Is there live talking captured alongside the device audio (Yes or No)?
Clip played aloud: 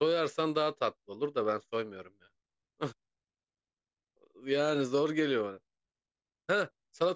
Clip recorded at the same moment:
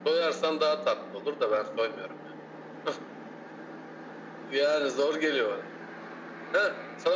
No